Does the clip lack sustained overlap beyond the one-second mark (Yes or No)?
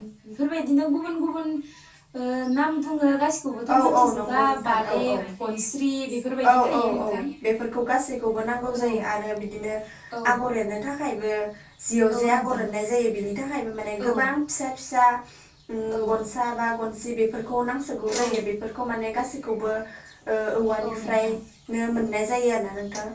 No